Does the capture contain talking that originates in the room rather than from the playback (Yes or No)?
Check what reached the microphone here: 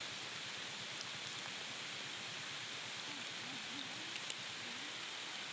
No